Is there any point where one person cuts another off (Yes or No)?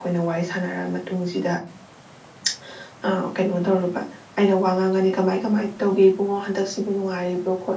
No